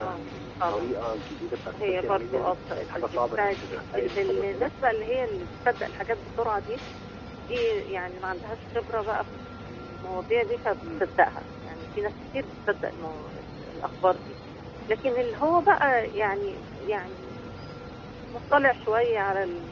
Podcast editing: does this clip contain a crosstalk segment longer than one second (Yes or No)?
Yes